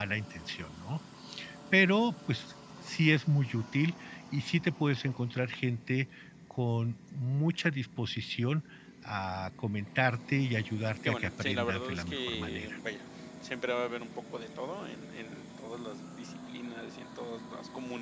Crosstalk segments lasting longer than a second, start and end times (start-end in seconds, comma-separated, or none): 11.1-12.8